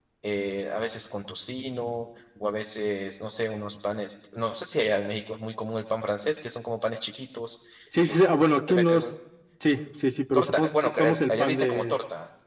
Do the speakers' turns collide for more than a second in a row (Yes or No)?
Yes